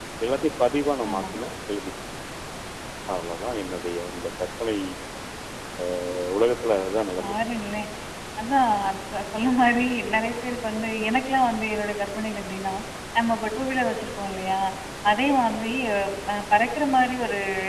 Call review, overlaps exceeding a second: none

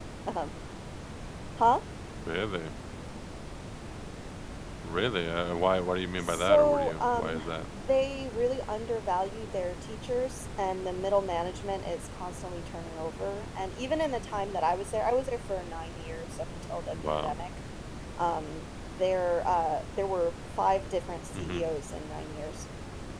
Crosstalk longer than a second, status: present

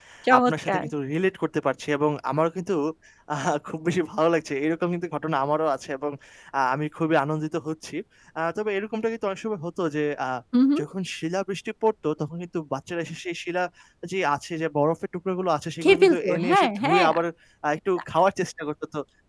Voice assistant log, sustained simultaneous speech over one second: present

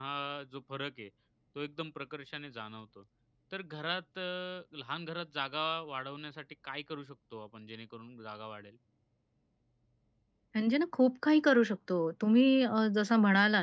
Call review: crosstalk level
none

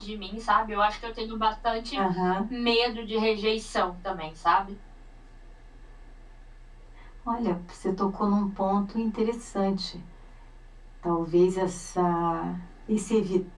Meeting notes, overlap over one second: none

